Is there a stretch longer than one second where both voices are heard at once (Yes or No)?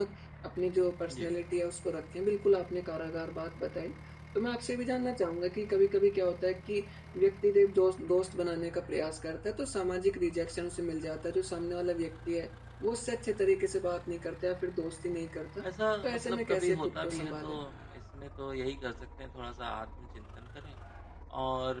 Yes